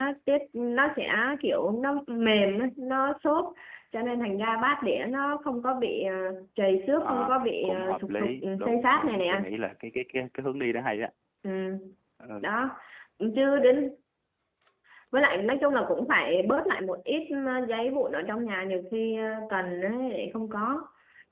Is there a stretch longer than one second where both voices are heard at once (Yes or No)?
Yes